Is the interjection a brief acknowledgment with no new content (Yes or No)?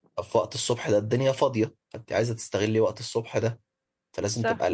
Yes